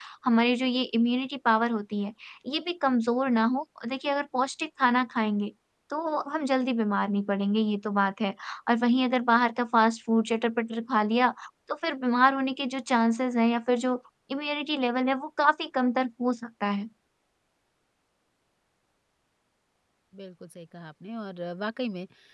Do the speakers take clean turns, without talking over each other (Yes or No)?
Yes